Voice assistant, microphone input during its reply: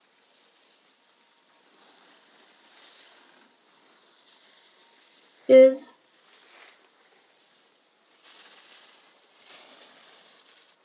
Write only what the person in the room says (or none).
is